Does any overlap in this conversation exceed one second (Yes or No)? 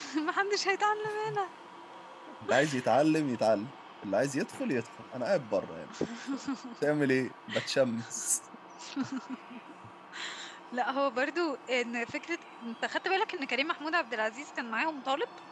No